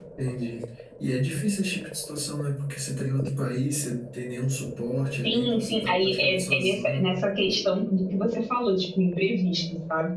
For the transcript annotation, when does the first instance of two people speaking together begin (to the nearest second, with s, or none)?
5 s